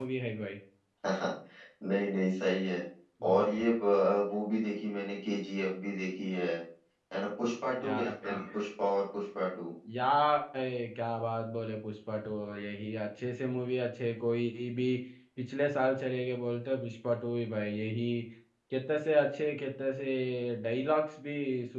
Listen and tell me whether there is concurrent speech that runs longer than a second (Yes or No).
No